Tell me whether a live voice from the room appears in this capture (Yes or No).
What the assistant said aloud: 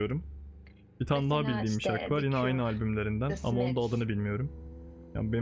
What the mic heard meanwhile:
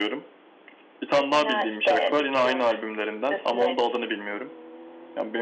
No